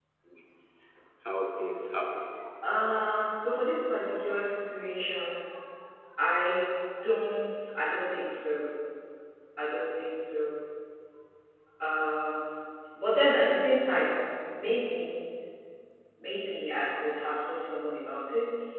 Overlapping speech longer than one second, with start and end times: none

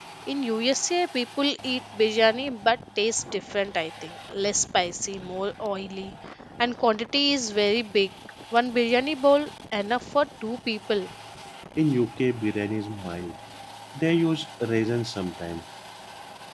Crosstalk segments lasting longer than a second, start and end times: none

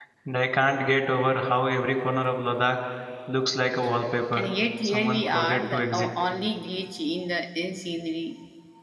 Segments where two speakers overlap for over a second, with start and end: 4.8-6.2

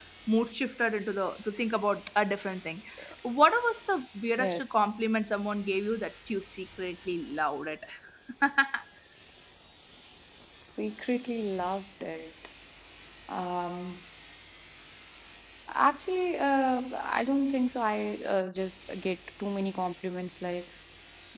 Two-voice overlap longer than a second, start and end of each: none

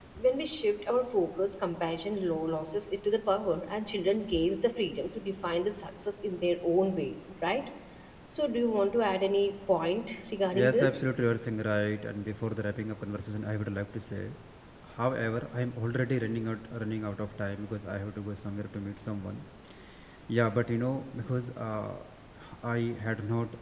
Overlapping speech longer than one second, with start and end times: none

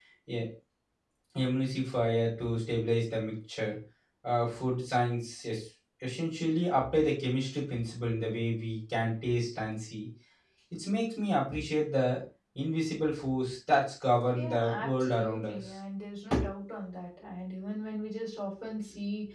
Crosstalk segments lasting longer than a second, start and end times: 14.3-15.6

